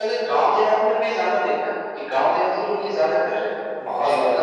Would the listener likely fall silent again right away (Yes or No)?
No